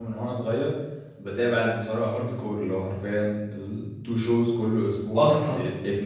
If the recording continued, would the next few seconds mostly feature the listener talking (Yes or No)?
No